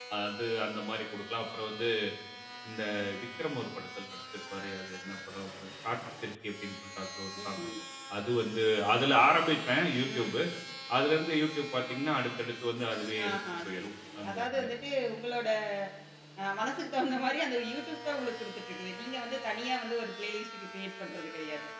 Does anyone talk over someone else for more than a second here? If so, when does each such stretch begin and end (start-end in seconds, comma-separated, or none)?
13.3-14.7